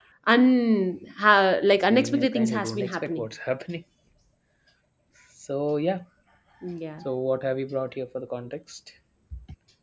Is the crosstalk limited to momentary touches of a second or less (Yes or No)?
No